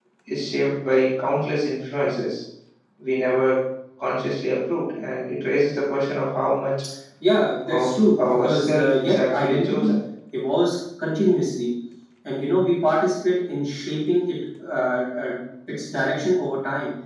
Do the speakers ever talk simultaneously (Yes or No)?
Yes